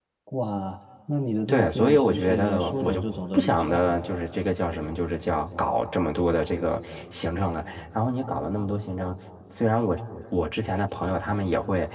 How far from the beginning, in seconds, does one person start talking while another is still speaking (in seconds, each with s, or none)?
1.5 s